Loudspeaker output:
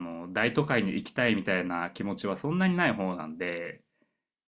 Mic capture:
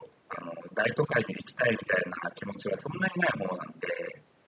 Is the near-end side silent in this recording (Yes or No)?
Yes